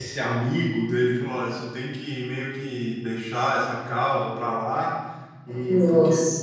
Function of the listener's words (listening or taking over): listening